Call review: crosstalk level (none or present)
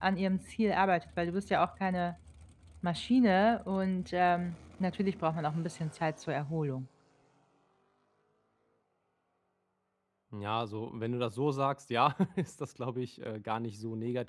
none